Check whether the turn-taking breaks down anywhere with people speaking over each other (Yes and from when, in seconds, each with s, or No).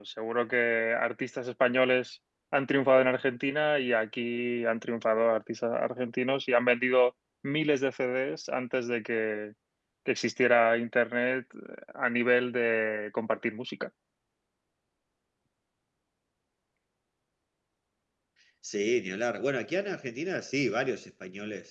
No